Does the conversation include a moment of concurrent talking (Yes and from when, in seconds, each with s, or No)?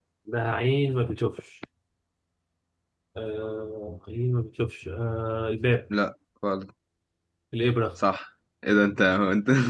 No